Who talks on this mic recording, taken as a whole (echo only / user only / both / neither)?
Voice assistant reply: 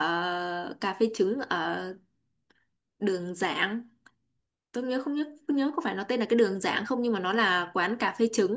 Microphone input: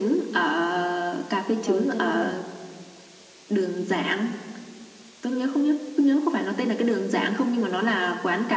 both